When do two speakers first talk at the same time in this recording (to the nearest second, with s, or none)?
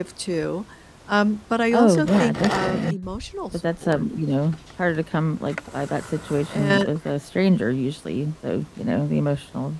2 s